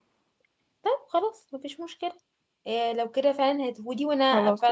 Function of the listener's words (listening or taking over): listening